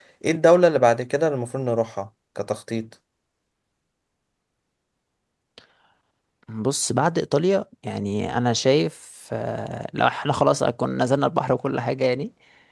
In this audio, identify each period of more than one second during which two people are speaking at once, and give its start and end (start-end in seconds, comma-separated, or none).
none